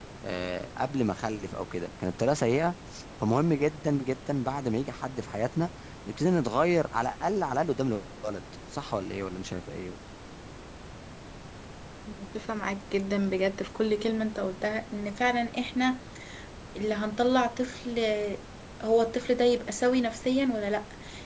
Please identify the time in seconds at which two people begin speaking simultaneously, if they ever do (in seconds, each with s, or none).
none